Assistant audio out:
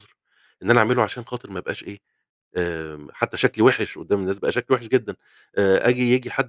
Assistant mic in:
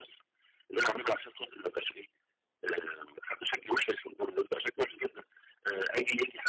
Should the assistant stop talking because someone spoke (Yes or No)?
No